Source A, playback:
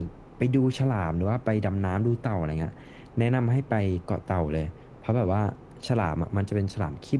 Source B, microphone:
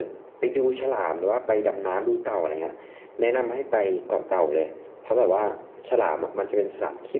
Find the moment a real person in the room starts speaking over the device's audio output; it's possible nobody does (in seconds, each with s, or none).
none